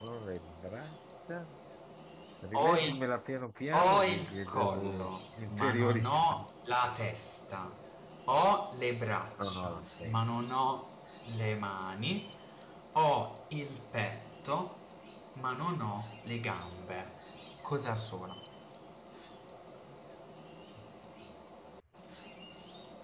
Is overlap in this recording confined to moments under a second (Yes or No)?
No